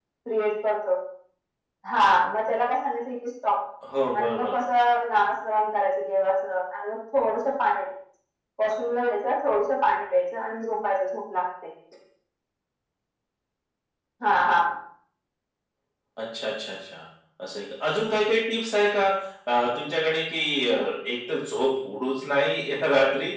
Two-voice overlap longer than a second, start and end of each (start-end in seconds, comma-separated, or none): none